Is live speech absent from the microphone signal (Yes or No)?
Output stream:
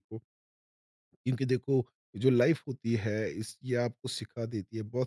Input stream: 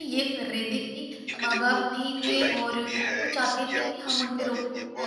No